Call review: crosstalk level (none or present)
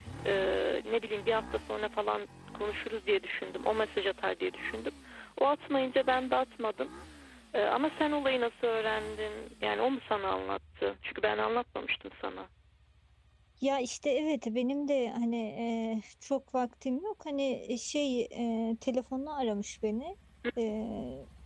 none